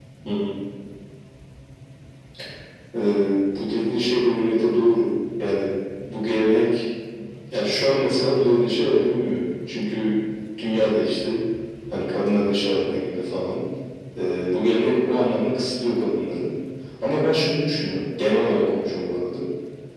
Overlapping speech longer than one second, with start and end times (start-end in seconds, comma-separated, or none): none